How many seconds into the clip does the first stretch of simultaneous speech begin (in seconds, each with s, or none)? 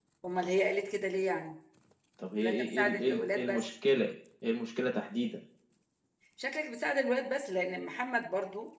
2.4 s